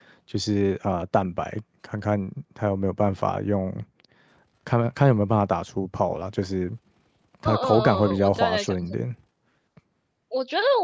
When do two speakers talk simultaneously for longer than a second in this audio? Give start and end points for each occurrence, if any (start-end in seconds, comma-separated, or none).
7.5-8.9